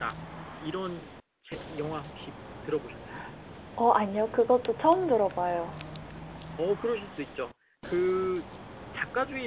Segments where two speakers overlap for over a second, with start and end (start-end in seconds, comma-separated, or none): none